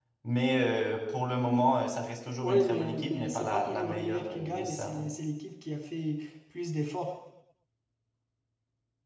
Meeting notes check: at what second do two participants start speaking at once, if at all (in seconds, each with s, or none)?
2.4 s